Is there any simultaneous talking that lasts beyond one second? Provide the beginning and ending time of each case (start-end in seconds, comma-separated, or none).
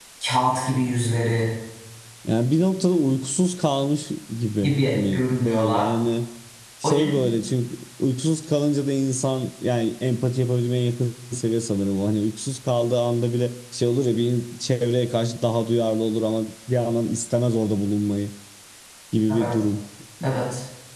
4.6-5.9